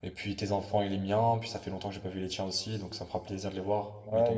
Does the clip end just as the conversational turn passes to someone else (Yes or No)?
Yes